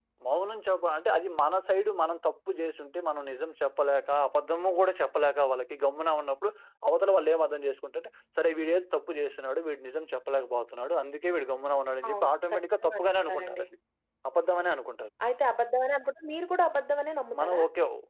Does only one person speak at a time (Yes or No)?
No